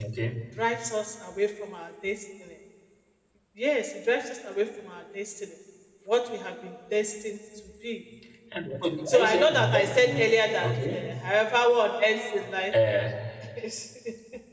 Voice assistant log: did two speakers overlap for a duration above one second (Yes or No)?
Yes